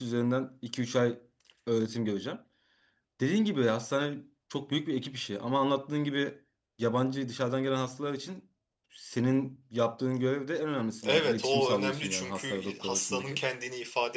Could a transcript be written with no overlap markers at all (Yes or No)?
No